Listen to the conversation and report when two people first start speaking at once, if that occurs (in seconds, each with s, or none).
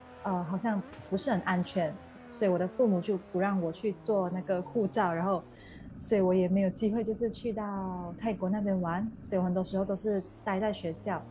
none